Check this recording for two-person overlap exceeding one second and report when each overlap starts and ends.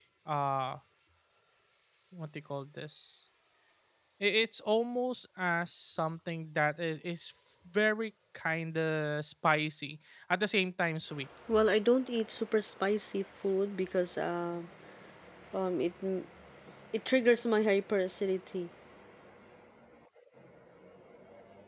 none

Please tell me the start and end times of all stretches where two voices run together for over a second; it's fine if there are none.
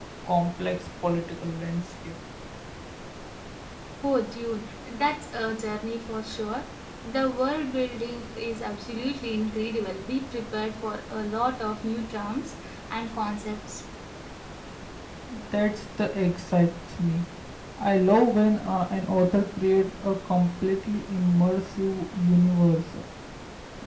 none

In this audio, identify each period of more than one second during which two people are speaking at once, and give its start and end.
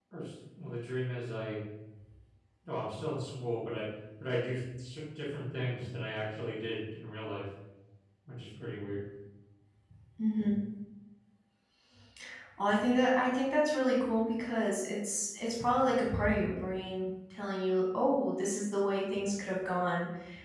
none

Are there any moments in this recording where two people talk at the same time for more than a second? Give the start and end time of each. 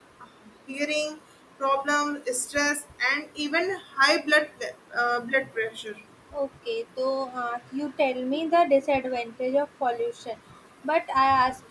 none

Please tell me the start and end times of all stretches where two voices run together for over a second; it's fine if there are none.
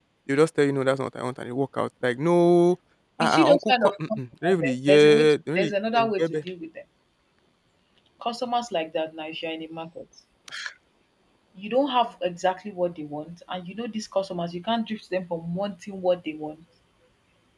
3.2-5.6

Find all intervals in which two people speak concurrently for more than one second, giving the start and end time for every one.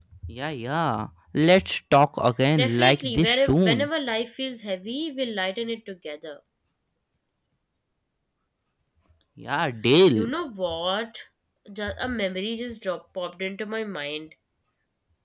2.6-3.9

